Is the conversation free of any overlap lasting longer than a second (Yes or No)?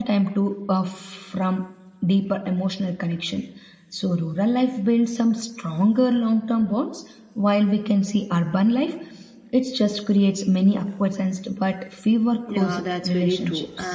No